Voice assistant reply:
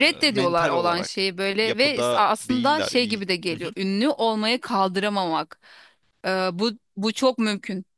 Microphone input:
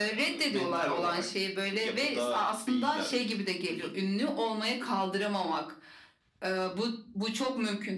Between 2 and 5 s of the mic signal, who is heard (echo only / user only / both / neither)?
echo only